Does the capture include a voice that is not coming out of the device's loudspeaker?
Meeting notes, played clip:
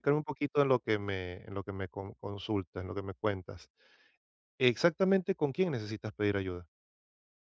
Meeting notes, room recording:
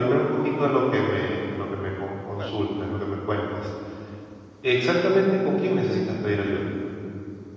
Yes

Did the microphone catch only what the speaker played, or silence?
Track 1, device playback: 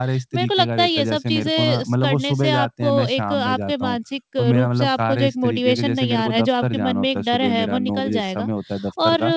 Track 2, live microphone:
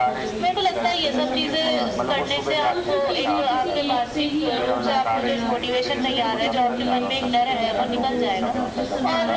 No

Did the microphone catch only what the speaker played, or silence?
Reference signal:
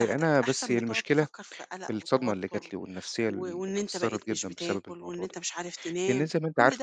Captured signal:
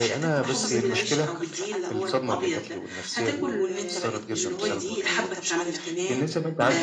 No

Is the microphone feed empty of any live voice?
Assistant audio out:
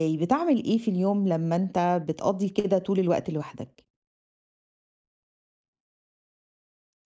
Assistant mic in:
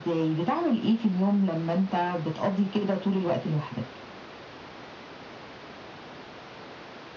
Yes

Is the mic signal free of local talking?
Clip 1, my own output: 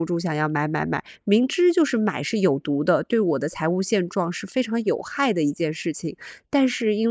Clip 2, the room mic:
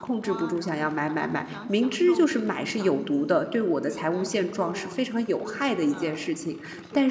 No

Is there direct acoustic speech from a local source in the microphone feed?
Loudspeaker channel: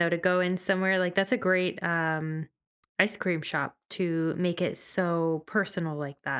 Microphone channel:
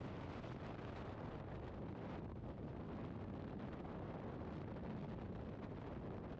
No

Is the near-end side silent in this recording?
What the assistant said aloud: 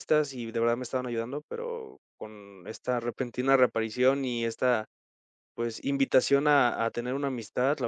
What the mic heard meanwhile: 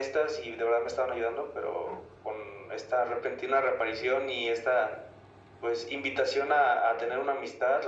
Yes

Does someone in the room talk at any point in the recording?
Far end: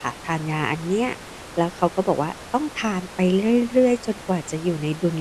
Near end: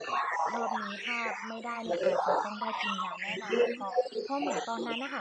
Yes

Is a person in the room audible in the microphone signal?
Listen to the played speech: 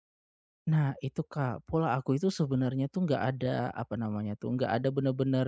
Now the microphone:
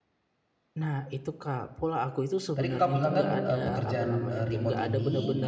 Yes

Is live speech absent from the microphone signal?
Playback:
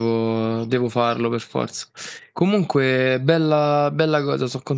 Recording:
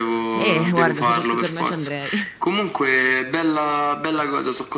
No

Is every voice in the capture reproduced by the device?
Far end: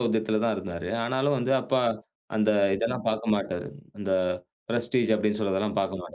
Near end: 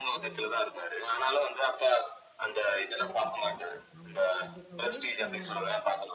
No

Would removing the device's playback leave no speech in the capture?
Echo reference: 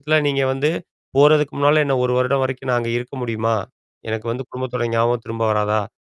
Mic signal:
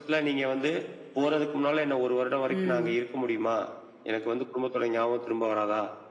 No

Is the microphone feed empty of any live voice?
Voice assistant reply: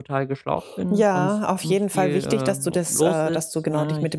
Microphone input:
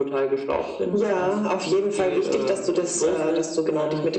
Yes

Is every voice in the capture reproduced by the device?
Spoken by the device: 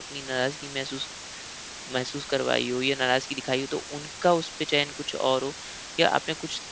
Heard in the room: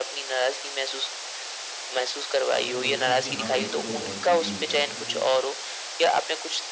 No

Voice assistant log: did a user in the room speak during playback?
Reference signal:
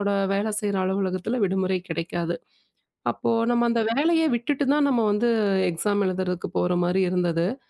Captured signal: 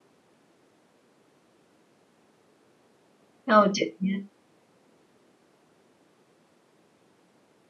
Yes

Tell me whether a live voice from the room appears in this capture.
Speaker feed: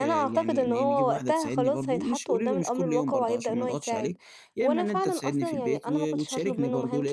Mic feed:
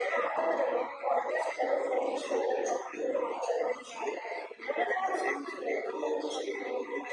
No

